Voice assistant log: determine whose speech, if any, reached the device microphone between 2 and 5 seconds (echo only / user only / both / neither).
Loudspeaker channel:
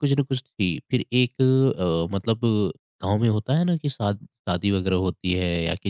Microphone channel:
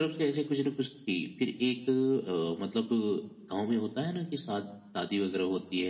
echo only